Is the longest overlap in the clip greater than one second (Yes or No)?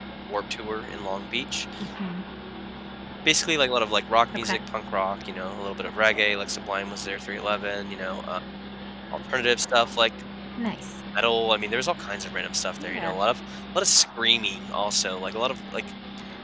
No